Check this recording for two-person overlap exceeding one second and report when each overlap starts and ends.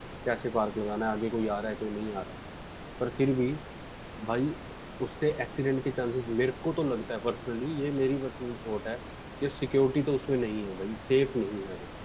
none

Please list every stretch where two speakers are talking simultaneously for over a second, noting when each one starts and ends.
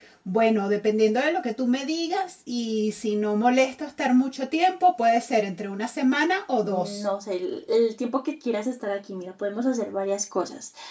none

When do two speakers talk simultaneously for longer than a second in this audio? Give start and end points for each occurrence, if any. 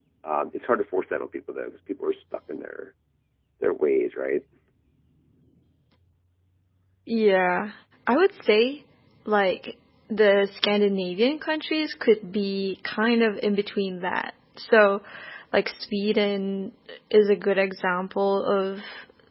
none

